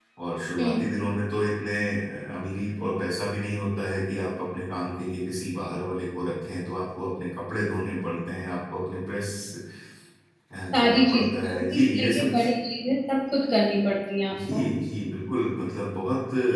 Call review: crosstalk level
present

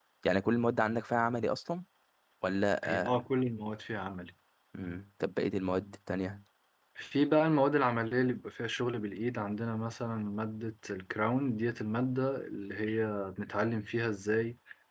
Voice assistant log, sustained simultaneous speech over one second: none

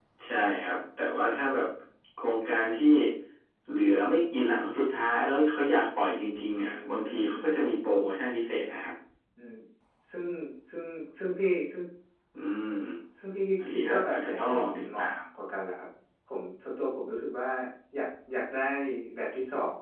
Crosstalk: present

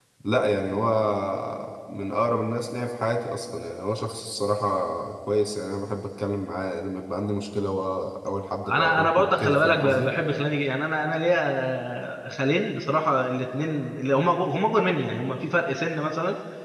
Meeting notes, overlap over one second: present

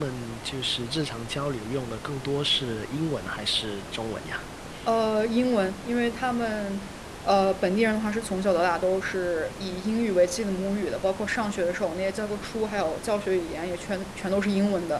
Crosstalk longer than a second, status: none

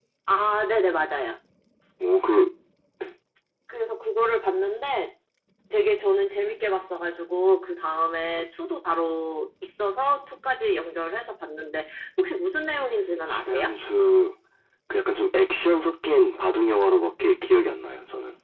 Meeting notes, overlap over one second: none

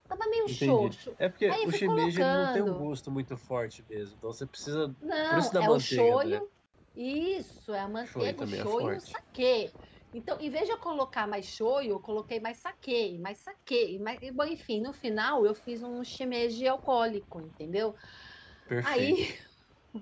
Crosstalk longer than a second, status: present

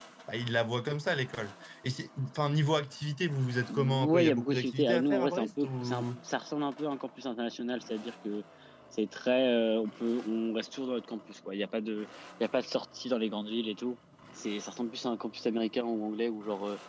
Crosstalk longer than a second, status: present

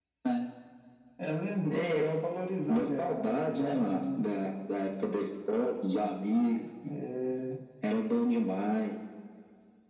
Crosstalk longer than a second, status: present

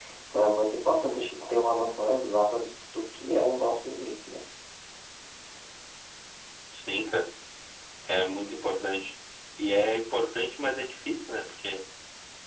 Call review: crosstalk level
none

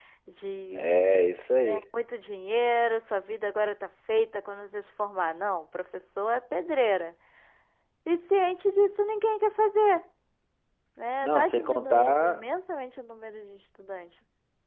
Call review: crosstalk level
present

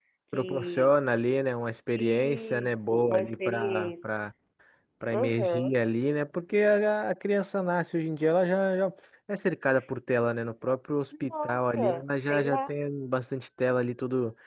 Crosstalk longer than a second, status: present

